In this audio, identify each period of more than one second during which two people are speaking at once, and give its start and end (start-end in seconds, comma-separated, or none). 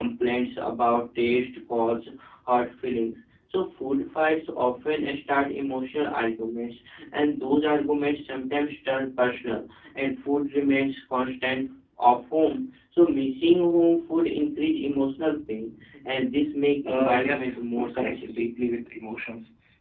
16.9-18.5